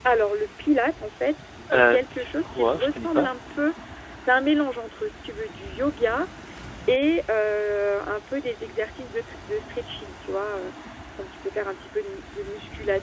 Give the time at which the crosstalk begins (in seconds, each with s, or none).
1.7 s